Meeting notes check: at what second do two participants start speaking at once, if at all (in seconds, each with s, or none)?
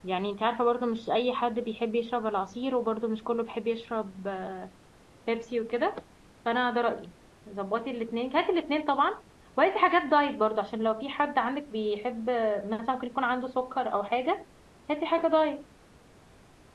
none